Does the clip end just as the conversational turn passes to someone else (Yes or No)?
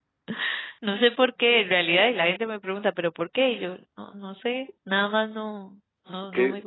Yes